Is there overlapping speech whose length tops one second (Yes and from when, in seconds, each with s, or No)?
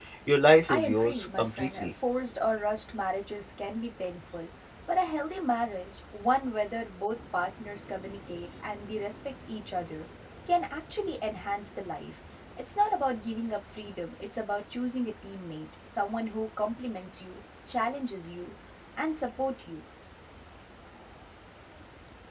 Yes, from 0.6 s